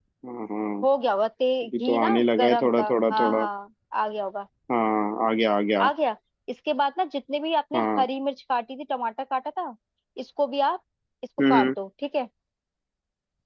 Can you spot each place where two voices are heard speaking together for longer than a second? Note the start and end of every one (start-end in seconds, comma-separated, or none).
1.6-3.5